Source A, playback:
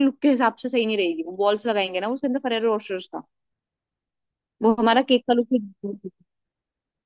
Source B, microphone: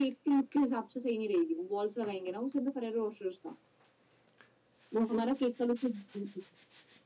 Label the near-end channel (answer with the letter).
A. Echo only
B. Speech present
A